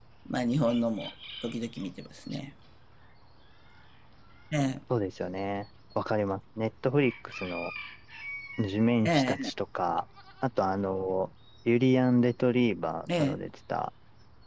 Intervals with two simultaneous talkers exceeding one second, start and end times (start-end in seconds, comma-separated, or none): none